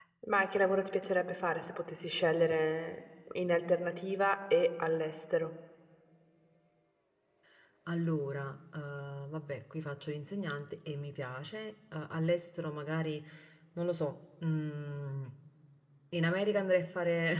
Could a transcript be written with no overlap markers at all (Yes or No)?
Yes